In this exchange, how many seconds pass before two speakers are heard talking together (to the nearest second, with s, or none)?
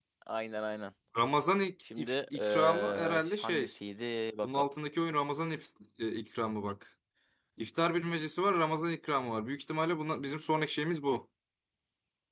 2 s